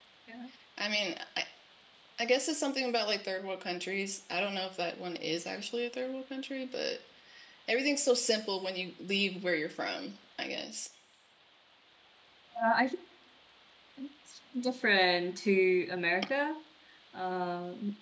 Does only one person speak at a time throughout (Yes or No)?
Yes